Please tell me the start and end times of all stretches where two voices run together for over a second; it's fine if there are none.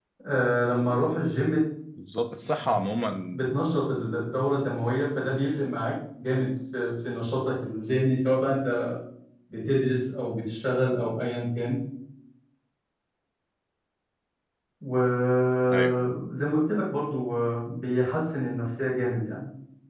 none

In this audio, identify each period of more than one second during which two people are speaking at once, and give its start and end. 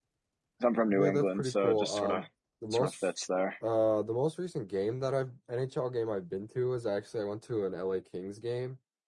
0.9-2.2

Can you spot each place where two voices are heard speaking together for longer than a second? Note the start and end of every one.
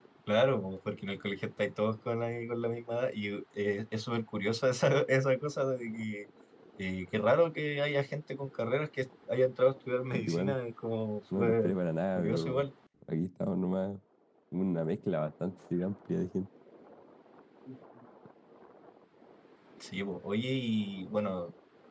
none

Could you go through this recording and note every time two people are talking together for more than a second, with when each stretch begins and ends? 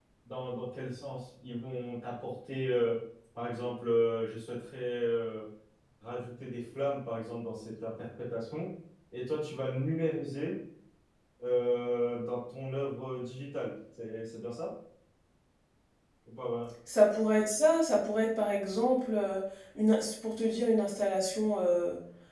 none

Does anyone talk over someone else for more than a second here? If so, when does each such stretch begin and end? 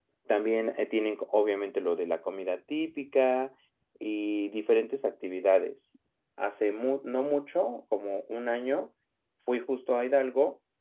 none

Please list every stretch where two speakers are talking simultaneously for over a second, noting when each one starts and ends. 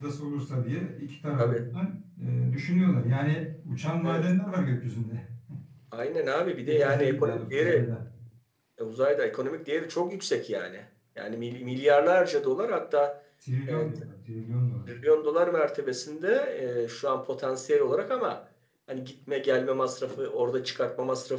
6.6-7.8

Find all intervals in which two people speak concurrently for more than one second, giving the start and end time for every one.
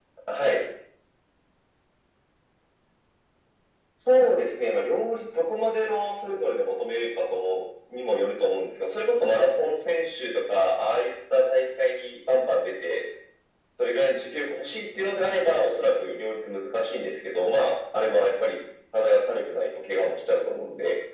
none

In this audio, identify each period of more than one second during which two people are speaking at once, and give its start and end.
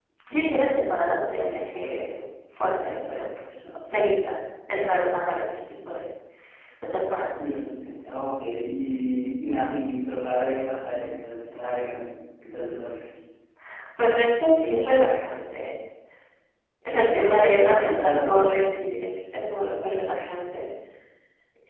16.9-18.5

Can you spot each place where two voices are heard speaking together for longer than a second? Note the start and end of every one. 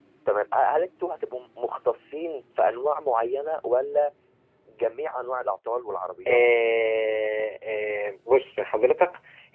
none

